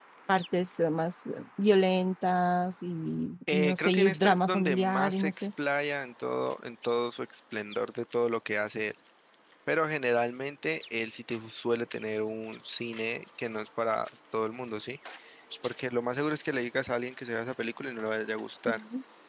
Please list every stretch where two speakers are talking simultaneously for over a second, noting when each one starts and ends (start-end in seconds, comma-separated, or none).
3.5-5.5